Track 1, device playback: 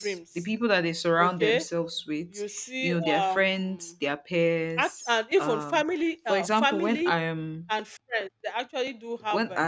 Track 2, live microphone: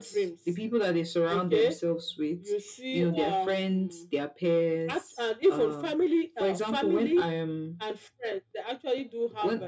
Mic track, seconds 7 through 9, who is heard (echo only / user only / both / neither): echo only